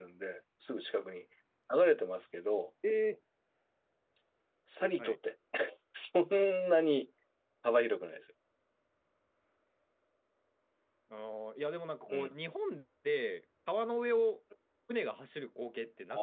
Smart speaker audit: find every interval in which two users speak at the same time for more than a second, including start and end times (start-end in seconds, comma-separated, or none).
none